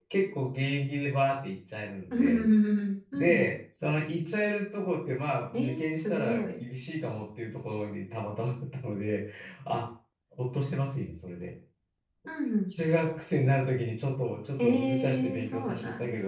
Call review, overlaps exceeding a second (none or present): present